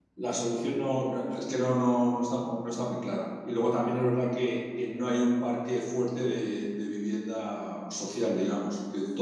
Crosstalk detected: No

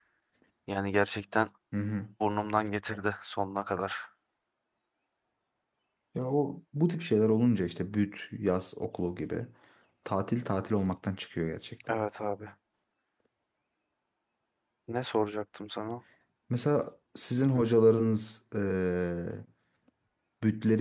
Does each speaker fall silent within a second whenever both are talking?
Yes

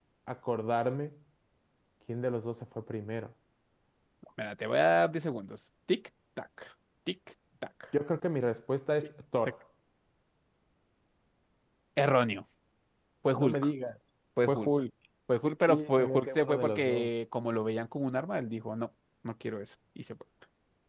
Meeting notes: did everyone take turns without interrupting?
No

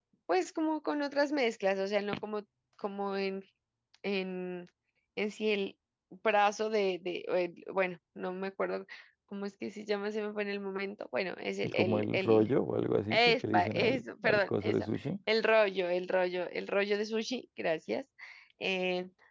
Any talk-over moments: Yes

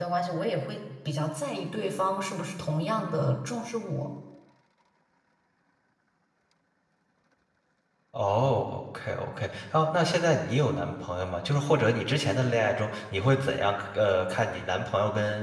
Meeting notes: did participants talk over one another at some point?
No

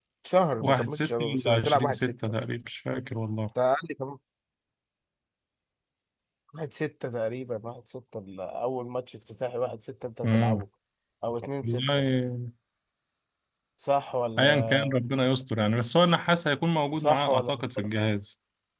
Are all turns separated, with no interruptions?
No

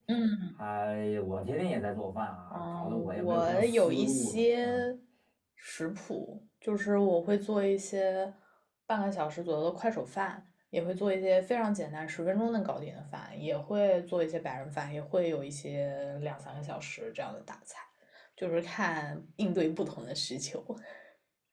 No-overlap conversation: No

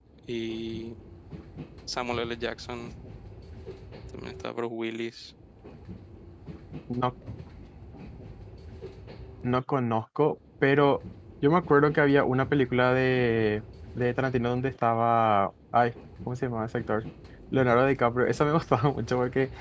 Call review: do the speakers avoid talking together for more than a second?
Yes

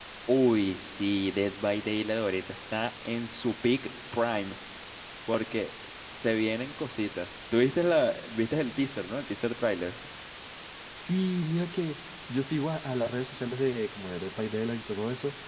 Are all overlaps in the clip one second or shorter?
Yes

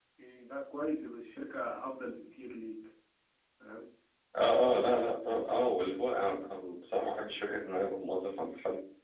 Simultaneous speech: No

